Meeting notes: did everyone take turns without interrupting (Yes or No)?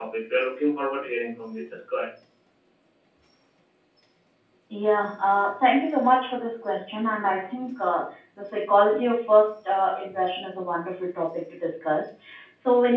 Yes